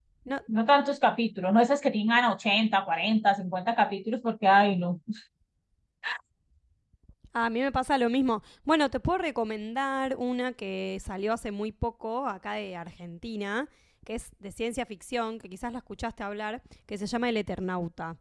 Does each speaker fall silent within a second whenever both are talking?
Yes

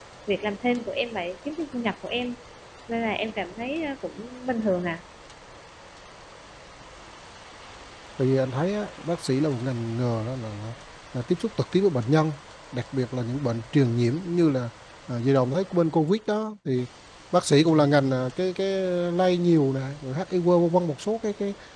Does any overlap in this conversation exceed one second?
No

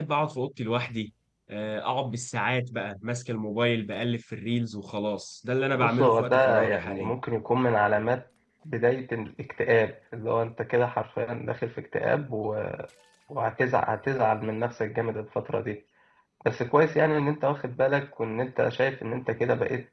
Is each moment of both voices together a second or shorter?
No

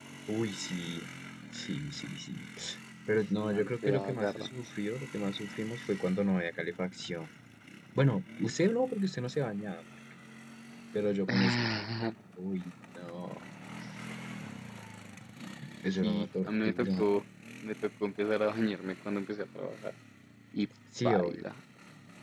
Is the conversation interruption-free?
No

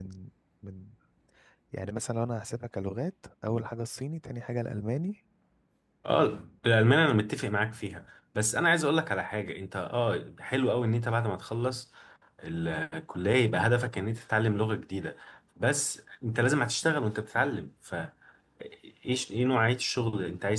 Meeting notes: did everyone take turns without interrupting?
Yes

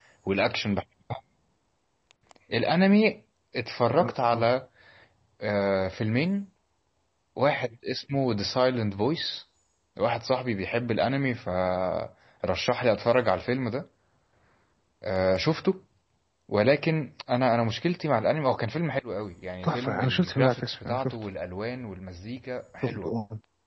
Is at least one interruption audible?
Yes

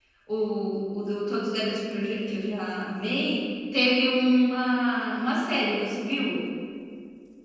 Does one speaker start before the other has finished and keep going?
No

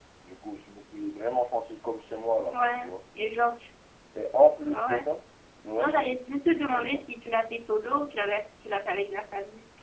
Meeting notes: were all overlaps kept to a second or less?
Yes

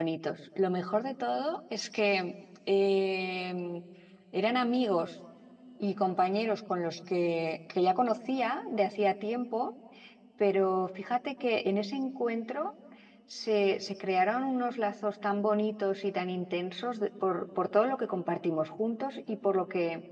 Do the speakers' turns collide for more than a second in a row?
No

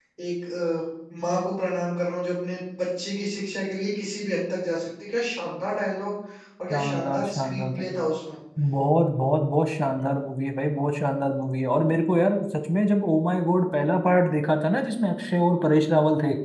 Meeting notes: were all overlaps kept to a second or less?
No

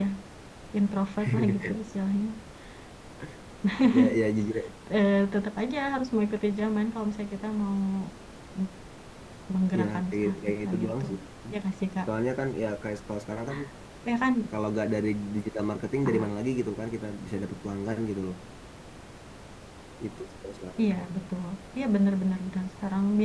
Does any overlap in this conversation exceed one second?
Yes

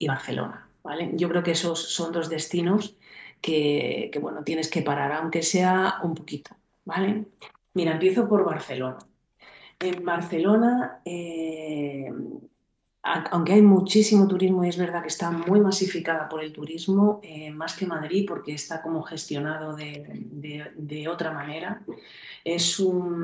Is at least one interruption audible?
No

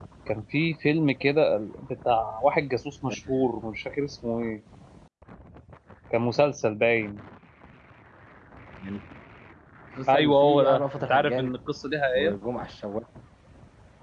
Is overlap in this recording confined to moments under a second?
No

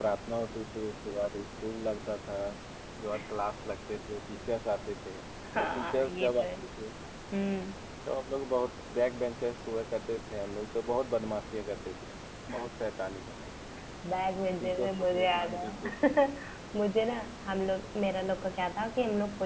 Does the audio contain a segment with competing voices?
Yes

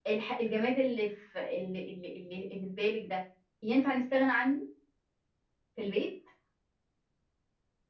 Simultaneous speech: No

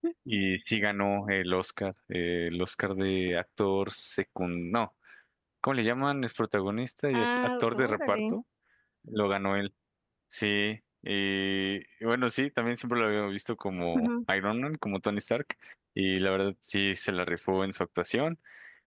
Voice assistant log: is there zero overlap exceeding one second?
No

